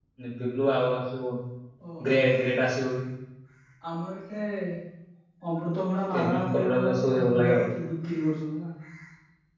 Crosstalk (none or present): present